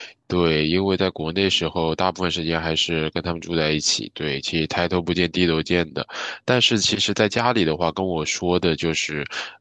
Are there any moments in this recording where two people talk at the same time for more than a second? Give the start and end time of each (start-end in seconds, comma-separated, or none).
none